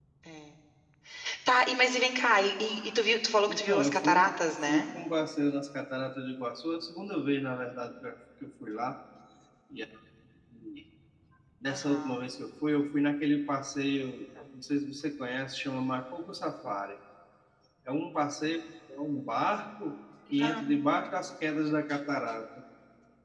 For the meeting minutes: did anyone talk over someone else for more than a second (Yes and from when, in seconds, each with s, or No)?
Yes, from 3.5 s